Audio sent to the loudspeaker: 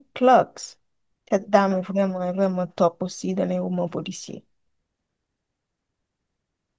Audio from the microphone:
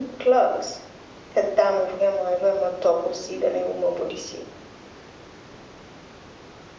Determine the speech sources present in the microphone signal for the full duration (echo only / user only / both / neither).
echo only